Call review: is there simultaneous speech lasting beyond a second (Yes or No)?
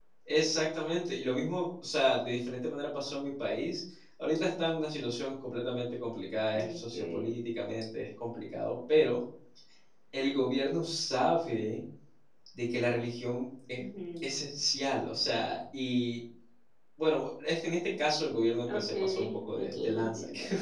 Yes